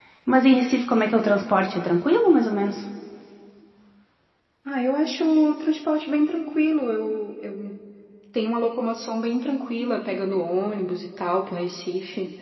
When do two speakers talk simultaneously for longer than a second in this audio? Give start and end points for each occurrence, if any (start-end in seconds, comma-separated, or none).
none